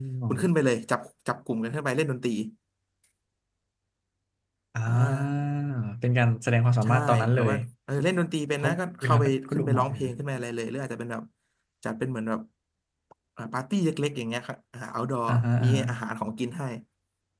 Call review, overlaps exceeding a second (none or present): present